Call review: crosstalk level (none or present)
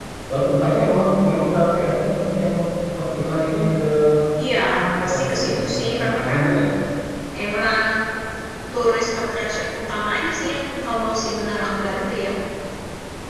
present